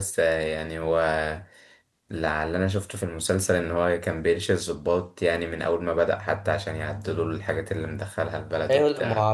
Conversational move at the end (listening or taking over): taking over